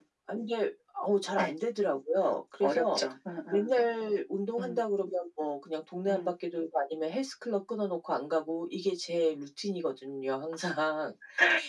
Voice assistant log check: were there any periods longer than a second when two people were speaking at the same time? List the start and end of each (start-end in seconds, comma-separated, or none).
none